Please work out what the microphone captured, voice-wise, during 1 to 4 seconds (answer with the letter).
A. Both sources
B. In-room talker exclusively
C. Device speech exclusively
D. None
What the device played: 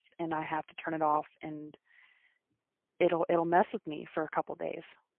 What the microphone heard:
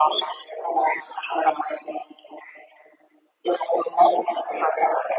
C